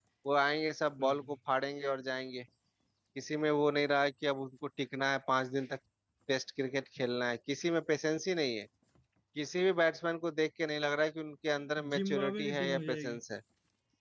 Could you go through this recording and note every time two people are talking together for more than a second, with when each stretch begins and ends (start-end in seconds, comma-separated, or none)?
11.9-13.2